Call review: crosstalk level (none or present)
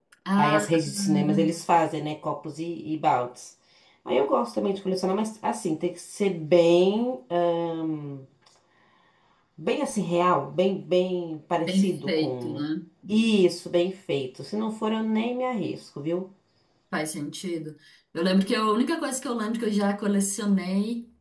present